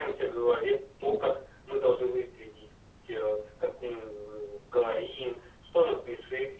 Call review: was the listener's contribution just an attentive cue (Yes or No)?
Yes